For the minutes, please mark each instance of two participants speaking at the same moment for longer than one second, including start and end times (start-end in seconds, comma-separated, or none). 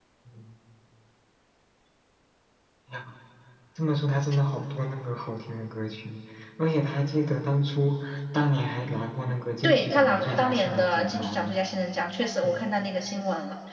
9.6-11.6